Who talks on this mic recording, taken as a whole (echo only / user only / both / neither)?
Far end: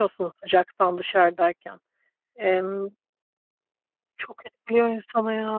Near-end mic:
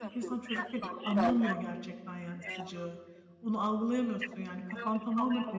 both